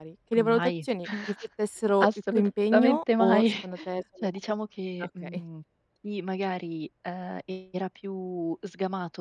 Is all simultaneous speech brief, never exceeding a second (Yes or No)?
No